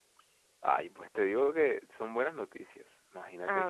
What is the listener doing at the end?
listening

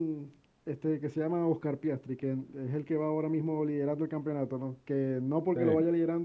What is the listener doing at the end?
listening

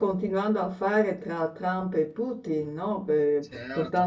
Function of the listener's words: taking over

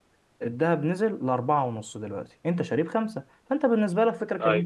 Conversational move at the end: listening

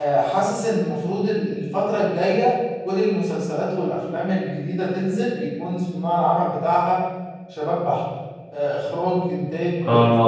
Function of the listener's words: taking over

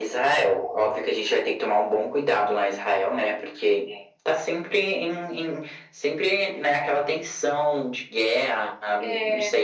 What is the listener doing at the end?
listening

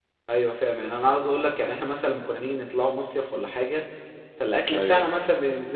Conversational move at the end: listening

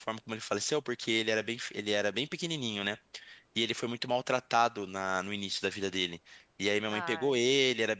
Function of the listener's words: listening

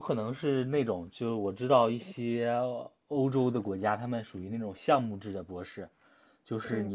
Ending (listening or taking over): listening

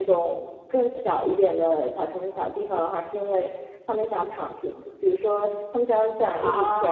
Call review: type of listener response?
listening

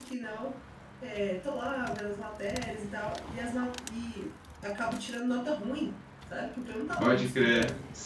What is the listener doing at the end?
taking over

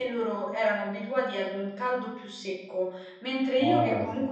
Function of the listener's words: listening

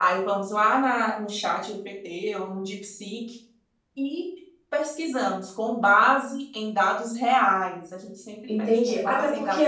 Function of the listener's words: taking over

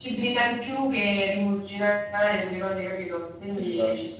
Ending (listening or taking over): taking over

